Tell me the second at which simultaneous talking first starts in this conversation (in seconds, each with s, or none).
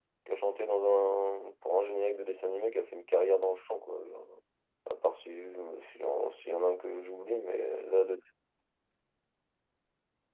none